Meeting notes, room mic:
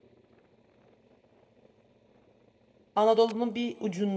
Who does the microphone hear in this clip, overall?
user only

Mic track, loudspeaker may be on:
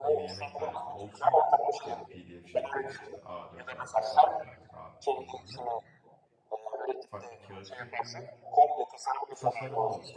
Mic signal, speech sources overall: both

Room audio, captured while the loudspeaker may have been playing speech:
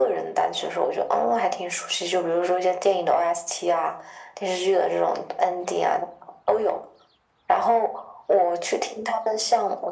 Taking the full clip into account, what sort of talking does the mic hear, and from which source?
echo only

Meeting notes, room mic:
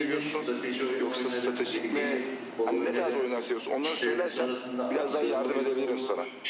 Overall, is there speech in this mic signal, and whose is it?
both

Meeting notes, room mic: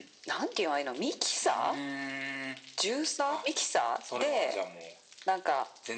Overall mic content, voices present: echo only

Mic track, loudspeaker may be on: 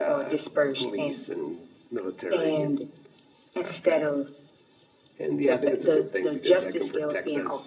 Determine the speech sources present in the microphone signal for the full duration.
echo only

